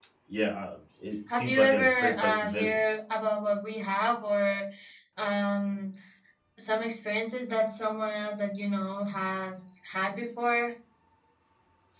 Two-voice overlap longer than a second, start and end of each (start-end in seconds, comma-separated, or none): 1.3-2.8